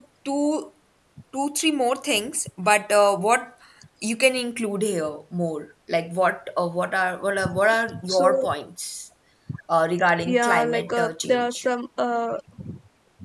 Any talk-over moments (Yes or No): Yes